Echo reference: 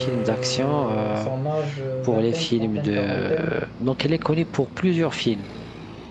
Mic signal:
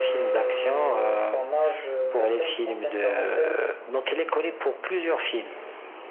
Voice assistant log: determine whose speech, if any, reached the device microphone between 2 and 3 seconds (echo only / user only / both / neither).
echo only